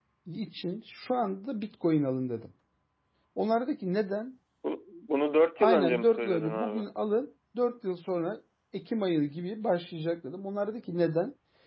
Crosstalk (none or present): present